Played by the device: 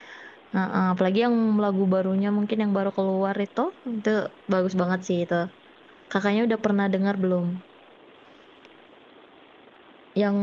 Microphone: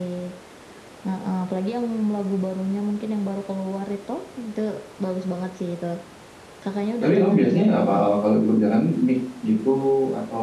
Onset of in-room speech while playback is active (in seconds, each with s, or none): 7.0 s